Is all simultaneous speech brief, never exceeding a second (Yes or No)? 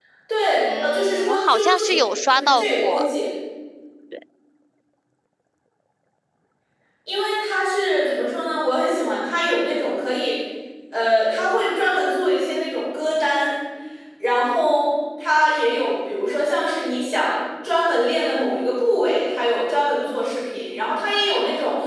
No